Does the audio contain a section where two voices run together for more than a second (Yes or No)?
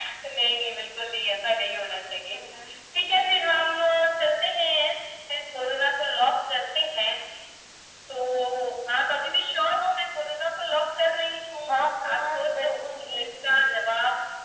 Yes